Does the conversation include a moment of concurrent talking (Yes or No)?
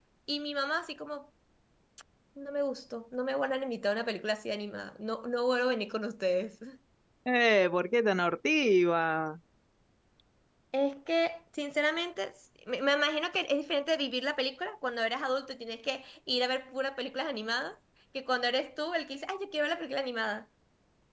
No